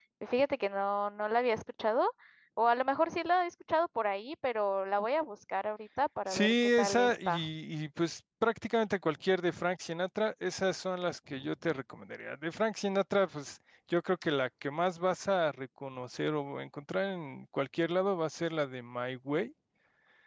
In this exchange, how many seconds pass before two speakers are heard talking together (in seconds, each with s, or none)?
6.3 s